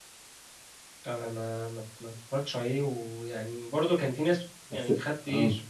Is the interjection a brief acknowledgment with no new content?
Yes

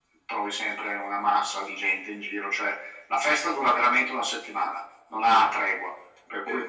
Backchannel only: No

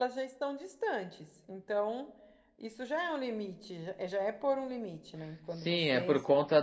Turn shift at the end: Yes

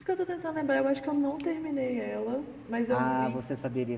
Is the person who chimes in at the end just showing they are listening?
No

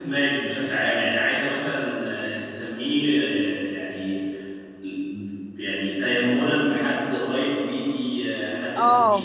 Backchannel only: No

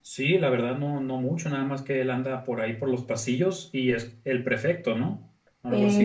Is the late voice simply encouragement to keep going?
No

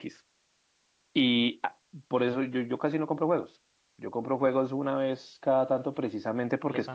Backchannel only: Yes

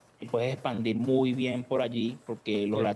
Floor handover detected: No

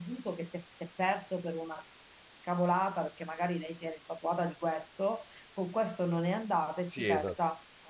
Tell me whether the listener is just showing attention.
Yes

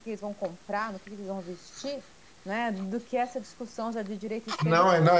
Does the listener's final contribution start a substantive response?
Yes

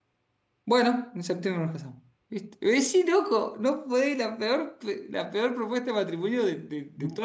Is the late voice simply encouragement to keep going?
No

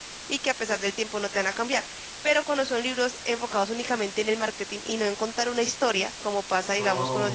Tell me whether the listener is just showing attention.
Yes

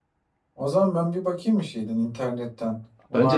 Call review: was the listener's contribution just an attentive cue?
No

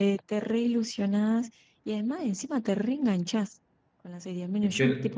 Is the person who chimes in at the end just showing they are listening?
Yes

